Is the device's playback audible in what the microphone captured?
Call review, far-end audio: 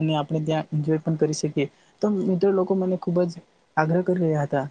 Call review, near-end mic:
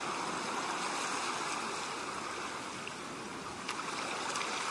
No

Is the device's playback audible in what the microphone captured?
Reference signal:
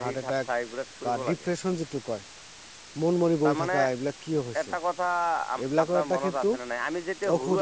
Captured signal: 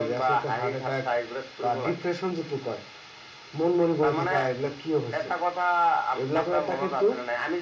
Yes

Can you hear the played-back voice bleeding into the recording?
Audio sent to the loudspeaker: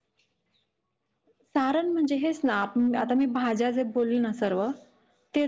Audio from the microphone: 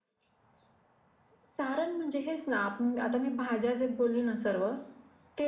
Yes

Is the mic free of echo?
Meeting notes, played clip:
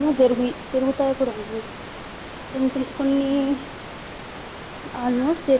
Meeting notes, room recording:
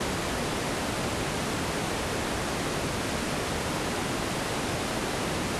Yes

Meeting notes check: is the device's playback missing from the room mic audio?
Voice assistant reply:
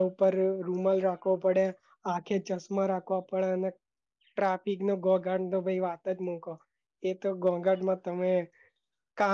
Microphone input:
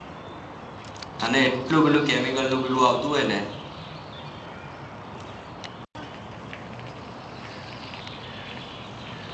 Yes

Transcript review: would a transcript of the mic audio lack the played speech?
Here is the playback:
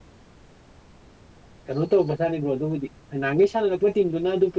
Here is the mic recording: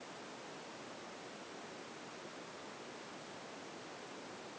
Yes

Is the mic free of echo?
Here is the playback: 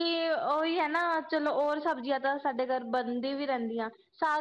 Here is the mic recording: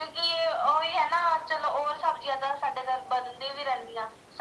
No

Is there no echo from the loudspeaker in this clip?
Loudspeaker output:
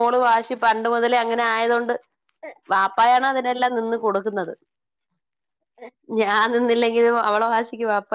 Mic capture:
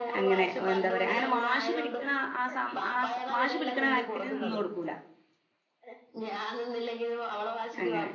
No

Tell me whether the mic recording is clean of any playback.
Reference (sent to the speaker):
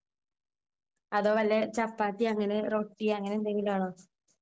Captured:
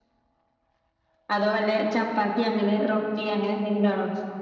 No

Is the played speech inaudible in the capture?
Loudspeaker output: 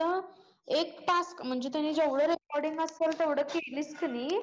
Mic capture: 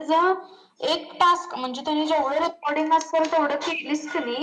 No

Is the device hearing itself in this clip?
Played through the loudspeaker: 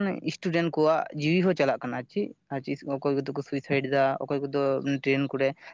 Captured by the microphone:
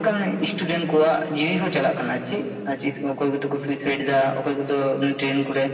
Yes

